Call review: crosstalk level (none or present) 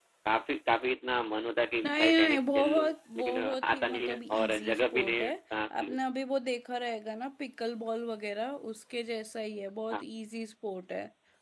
present